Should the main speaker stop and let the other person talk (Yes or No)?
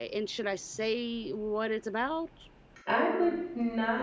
Yes